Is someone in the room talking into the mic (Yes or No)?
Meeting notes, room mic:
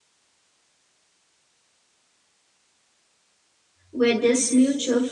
Yes